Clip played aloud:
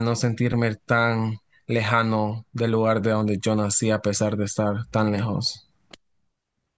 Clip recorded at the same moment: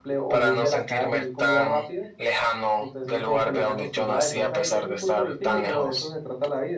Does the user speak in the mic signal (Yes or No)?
Yes